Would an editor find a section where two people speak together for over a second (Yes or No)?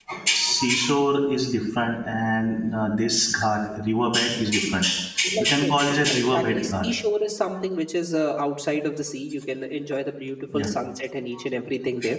Yes